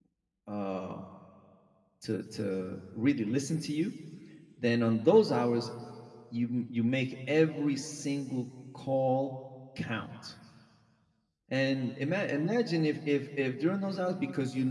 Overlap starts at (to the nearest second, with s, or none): none